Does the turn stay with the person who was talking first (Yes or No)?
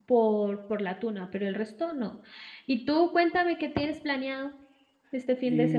No